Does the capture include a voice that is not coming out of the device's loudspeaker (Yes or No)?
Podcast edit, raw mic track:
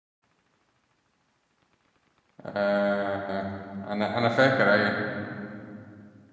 Yes